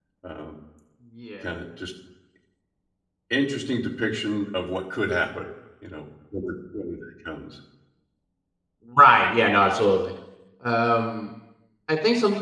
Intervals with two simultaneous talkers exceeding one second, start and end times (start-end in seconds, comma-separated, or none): none